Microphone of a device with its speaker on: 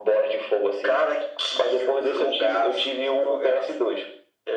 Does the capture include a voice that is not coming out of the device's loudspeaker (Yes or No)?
No